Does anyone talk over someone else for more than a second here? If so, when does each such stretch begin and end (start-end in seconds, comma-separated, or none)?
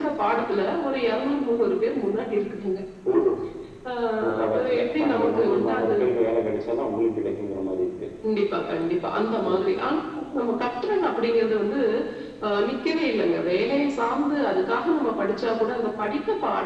4.4-5.9